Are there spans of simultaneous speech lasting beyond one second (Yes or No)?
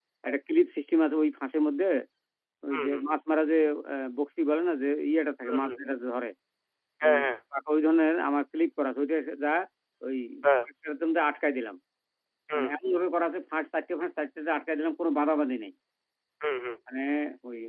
No